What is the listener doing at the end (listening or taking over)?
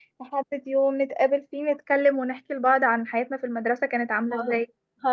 taking over